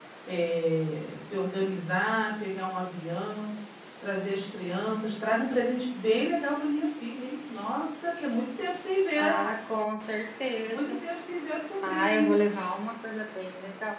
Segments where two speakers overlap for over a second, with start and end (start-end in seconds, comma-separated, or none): none